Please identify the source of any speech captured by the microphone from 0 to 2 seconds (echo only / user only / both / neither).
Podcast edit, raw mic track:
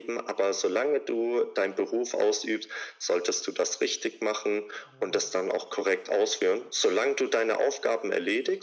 echo only